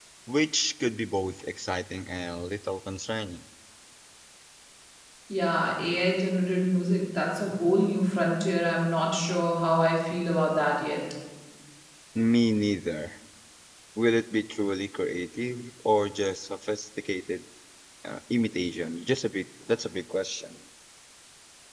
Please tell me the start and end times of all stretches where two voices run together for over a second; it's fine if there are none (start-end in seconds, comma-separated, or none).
none